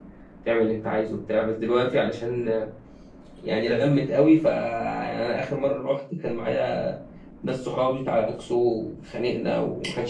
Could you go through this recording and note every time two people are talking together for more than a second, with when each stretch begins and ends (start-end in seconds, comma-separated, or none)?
none